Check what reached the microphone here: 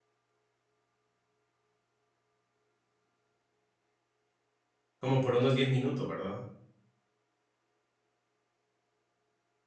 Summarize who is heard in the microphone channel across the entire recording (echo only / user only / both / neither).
user only